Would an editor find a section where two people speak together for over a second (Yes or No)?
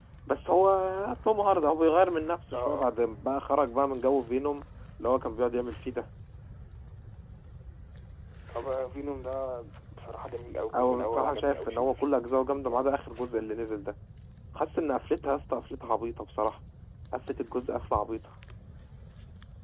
Yes